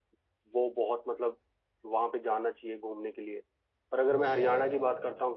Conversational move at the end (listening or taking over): listening